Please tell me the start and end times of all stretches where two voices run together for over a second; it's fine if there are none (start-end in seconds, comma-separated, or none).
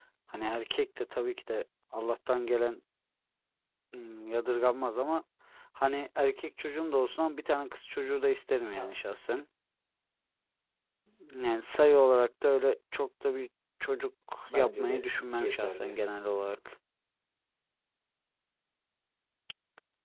14.5-16.0